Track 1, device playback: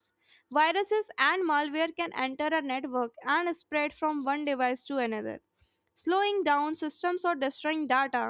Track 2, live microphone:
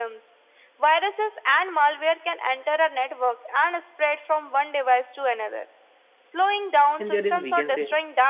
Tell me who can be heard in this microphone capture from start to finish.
both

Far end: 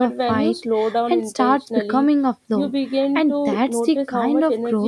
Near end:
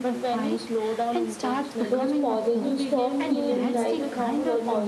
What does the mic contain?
both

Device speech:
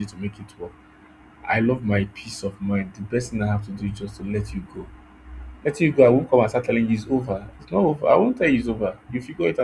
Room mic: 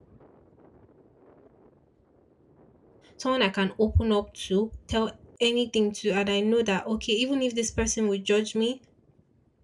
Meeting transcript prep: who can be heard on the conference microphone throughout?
user only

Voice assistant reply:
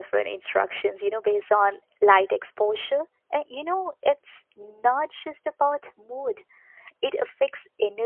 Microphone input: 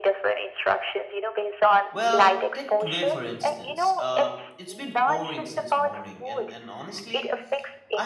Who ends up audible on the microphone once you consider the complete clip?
both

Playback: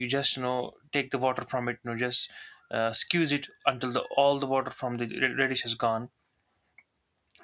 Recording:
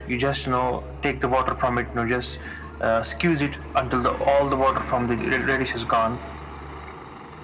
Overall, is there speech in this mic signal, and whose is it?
echo only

